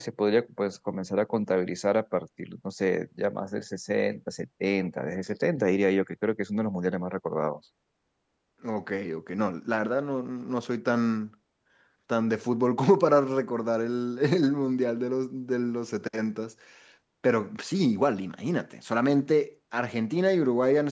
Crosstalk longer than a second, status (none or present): none